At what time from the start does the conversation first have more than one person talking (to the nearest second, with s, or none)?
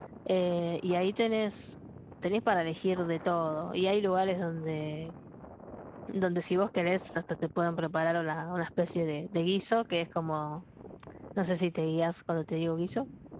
none